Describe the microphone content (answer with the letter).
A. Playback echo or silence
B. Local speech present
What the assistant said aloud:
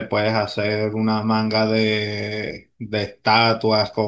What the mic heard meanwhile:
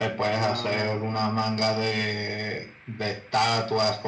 B